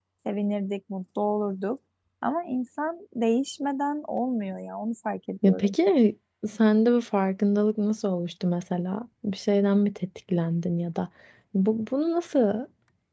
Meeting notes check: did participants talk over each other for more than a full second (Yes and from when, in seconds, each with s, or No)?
No